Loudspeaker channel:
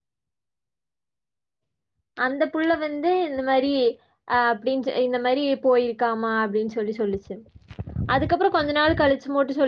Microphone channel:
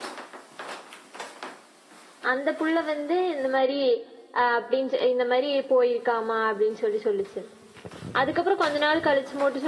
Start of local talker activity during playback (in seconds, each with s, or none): none